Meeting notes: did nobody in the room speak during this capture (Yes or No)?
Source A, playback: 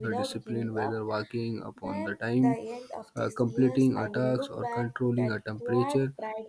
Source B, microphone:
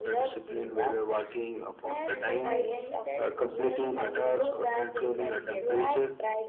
No